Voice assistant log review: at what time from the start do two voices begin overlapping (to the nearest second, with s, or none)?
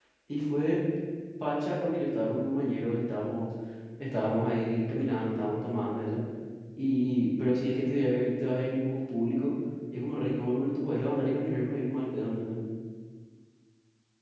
none